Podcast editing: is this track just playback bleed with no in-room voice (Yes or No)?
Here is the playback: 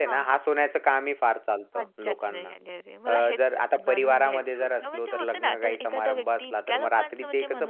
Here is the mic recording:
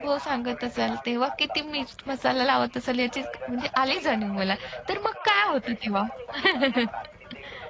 No